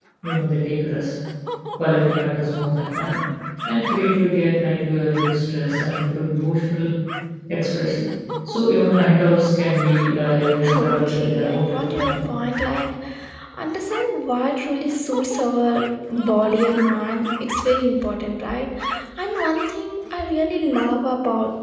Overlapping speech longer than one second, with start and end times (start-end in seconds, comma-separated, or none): 10.8-12.2